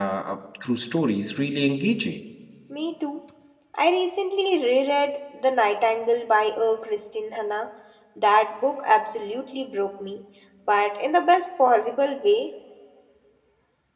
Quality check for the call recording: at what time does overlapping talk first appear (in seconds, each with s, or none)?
none